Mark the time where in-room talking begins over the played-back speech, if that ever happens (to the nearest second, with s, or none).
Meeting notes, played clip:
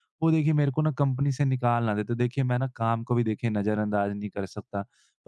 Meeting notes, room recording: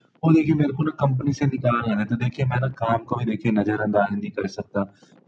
none